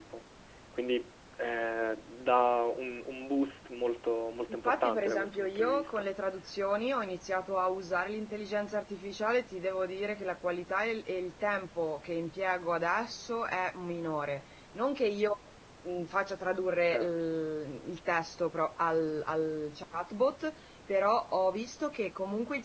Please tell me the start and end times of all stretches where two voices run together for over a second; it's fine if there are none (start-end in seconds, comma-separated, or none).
4.6-6.0